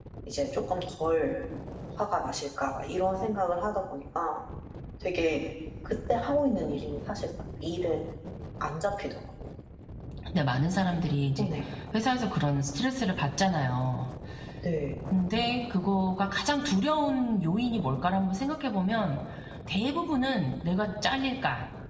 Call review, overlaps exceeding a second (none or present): none